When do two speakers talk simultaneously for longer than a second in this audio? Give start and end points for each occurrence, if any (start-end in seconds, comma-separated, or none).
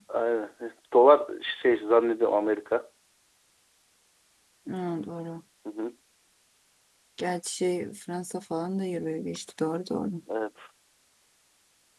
none